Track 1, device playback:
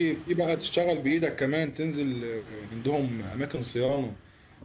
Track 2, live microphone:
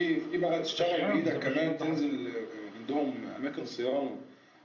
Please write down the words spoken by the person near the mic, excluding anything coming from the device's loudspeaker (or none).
مش حفظ مش ماده حفظ